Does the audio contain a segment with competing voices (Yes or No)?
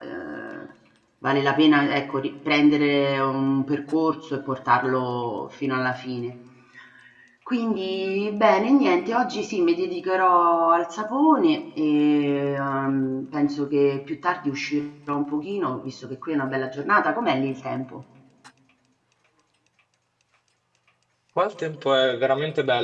No